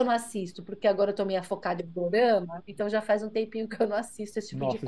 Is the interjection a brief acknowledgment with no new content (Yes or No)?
No